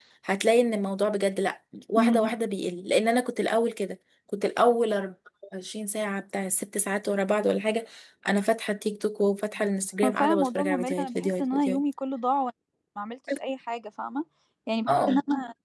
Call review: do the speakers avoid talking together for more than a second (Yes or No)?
No